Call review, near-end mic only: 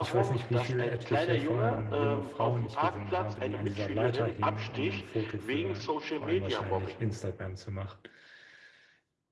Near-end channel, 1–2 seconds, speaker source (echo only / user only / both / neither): both